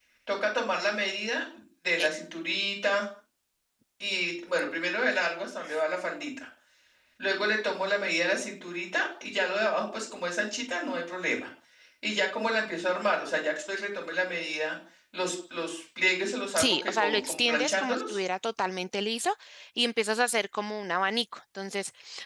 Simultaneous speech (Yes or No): Yes